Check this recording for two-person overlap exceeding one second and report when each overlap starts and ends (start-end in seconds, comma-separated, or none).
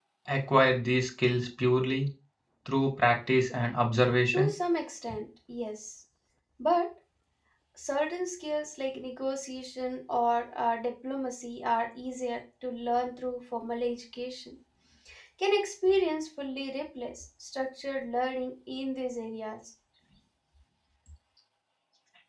none